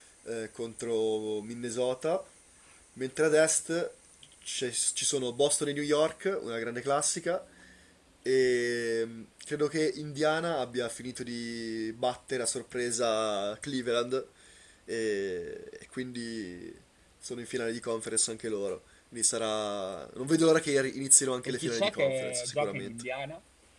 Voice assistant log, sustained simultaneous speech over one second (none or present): present